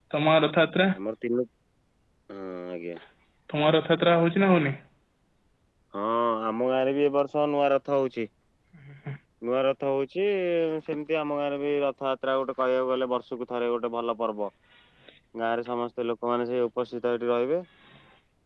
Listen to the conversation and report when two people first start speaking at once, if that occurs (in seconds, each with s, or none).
none